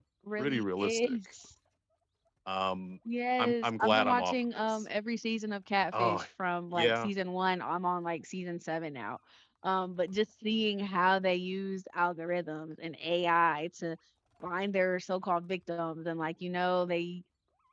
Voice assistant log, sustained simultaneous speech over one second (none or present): present